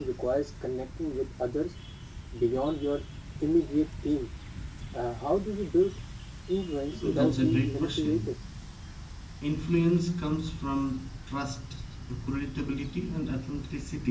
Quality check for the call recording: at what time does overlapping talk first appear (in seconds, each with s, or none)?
6.9 s